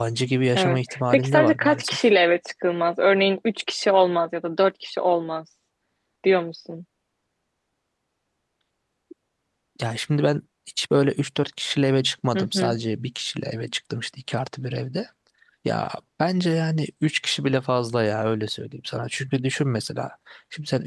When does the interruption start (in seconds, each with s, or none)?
0.6 s